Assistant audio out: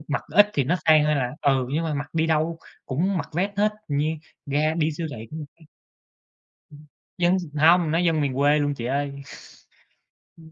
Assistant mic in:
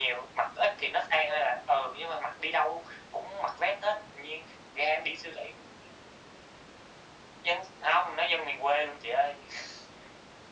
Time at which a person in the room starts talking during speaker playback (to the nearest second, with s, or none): none